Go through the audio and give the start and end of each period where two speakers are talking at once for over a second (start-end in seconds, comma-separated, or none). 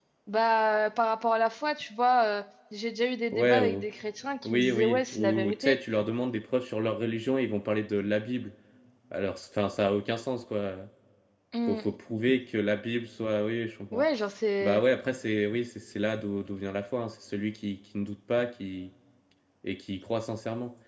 4.5-5.8